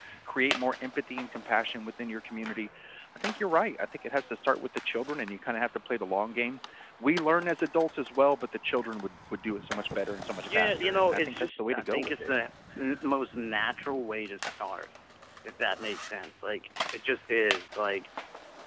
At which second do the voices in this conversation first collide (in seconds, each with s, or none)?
10.5 s